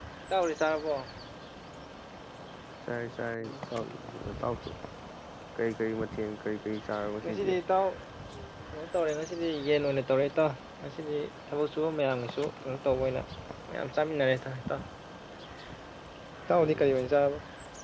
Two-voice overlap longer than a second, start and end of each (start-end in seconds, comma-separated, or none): none